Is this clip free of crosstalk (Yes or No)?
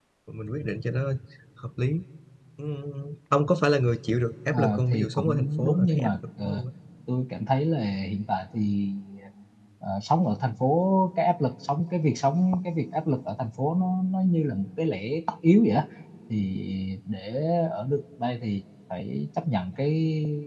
No